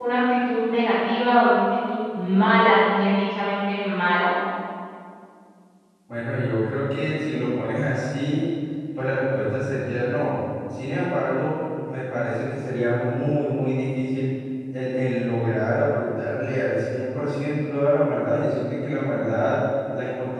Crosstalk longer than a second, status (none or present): none